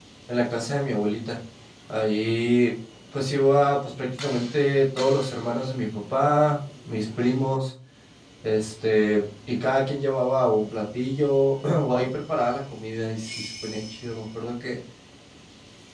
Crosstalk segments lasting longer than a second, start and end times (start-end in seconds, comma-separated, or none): none